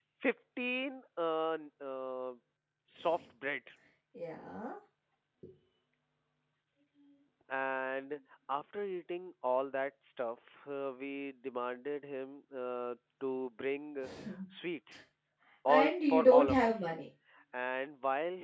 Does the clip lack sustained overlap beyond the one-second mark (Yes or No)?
No